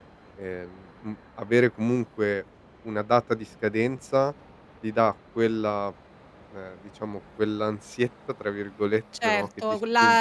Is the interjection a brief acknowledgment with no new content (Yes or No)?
No